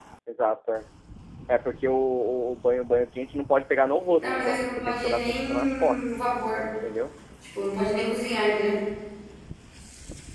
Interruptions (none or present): present